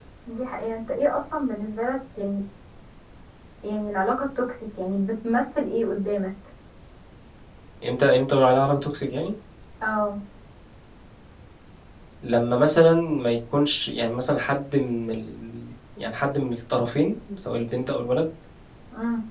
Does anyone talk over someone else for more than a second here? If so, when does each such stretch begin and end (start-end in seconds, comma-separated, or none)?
none